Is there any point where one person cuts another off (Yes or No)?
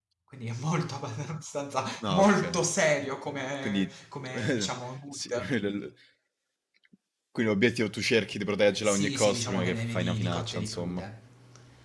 Yes